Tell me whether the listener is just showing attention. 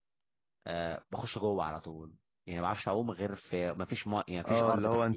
No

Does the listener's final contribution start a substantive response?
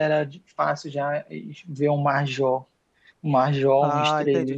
Yes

